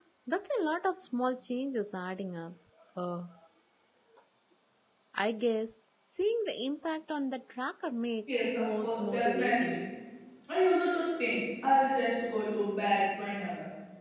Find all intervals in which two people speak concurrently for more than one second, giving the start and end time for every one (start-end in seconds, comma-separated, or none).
8.3-9.7